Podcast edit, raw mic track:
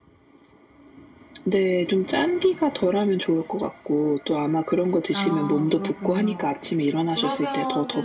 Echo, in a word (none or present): present